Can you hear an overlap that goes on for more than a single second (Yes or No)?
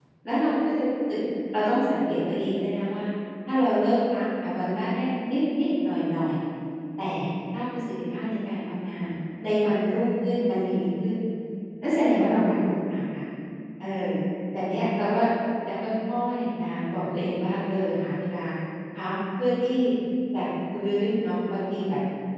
No